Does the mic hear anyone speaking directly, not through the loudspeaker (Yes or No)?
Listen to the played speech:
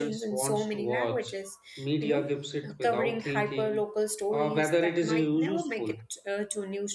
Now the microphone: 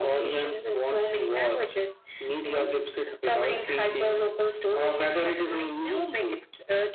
No